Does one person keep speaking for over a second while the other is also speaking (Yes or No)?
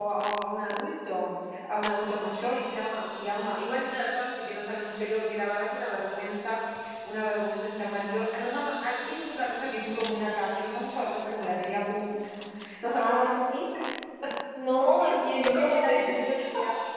Yes